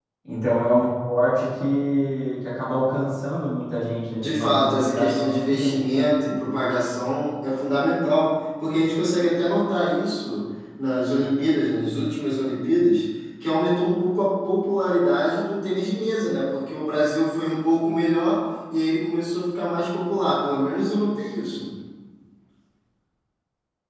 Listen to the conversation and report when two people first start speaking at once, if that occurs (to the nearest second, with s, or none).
4 s